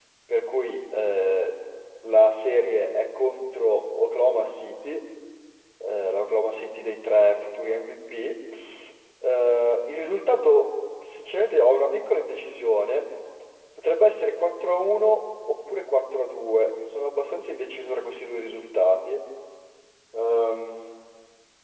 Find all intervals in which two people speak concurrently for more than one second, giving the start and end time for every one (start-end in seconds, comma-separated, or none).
none